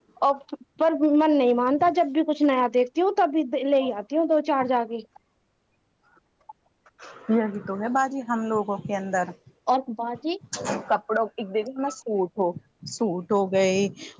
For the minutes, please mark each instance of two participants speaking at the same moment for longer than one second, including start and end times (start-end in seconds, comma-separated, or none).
none